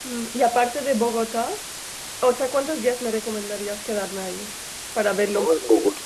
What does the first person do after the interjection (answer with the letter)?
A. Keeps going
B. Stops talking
B